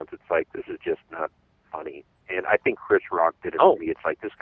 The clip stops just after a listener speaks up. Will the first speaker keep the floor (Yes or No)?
Yes